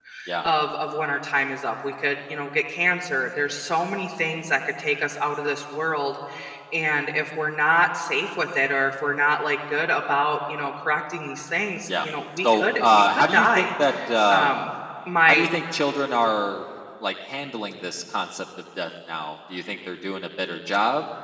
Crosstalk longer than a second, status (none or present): present